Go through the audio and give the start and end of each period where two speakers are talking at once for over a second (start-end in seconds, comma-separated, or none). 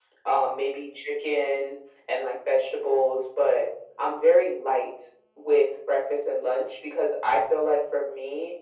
none